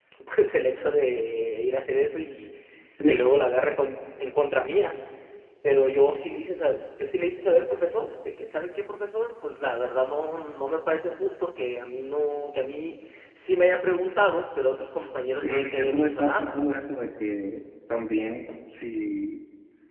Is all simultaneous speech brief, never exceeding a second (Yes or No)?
No